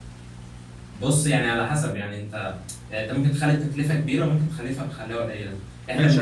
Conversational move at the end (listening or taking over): taking over